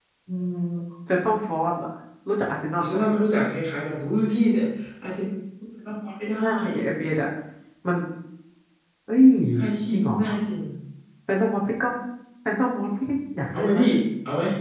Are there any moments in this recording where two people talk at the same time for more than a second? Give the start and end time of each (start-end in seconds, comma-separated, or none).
none